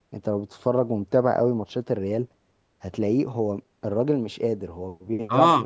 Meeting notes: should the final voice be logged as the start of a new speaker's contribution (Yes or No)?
Yes